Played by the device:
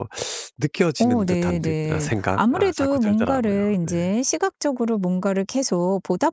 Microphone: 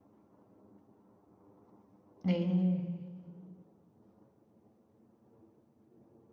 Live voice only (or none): 네.